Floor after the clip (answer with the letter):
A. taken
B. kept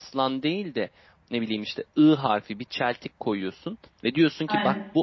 B